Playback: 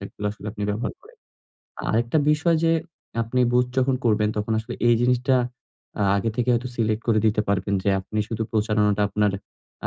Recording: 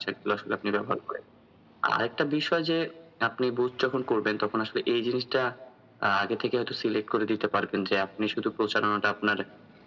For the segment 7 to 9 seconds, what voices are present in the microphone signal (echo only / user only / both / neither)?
echo only